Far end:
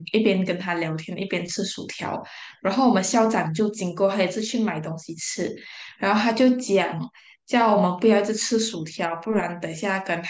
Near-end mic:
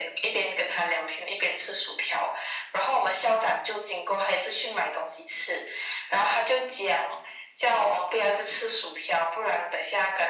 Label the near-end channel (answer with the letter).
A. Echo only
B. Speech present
A